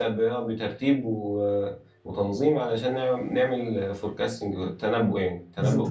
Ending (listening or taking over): taking over